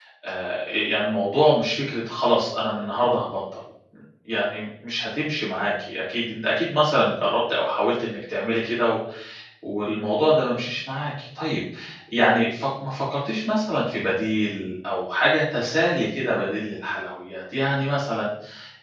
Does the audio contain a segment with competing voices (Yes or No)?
No